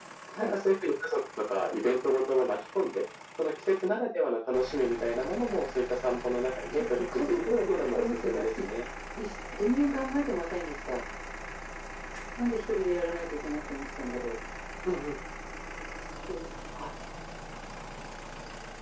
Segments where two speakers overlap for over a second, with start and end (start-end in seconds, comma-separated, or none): 6.7-8.6